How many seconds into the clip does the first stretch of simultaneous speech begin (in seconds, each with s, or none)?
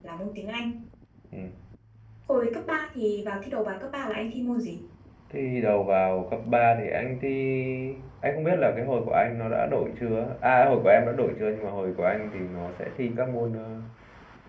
none